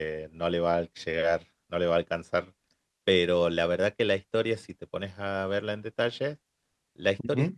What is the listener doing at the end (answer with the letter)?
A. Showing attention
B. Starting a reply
A